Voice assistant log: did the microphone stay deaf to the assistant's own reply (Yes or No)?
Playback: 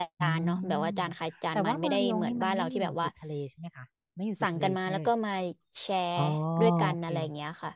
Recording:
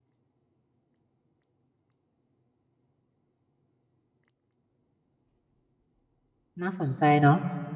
Yes